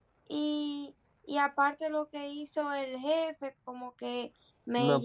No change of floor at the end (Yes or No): No